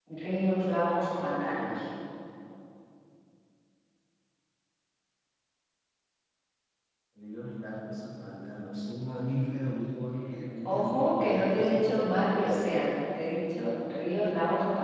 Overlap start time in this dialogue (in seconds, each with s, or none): 10.6 s